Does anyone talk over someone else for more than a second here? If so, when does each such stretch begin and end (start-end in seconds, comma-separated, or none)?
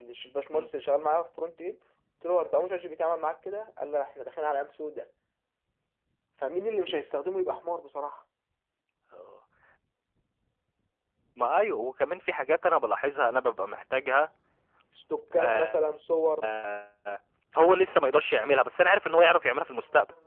none